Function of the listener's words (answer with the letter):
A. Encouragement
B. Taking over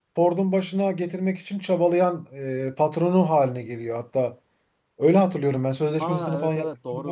B